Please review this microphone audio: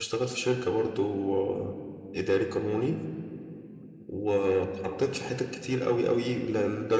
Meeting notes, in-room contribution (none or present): present